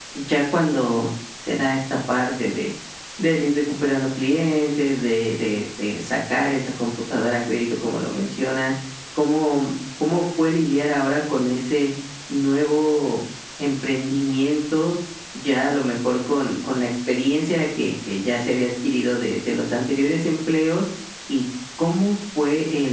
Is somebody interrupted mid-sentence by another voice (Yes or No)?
No